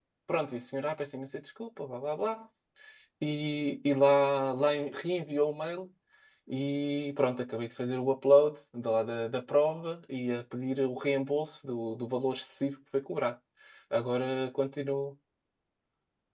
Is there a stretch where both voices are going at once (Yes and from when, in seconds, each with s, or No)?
No